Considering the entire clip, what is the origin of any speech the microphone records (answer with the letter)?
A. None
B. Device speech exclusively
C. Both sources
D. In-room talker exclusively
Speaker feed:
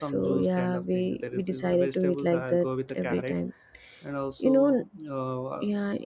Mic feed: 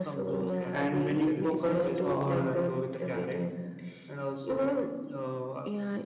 C